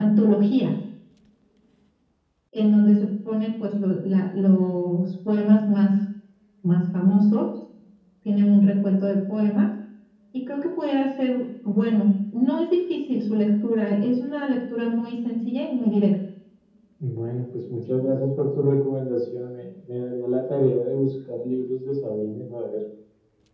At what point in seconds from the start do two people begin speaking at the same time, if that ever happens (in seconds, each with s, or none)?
none